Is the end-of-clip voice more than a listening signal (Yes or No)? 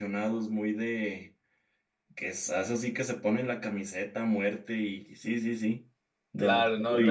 Yes